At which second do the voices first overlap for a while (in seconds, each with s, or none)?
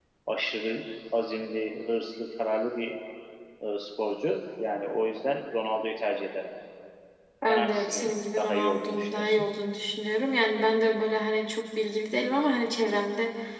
7.5 s